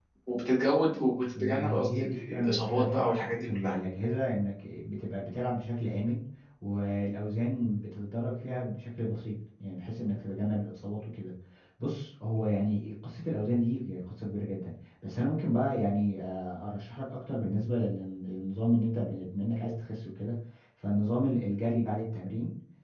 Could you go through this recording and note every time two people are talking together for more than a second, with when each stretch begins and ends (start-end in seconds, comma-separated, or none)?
1.4-3.8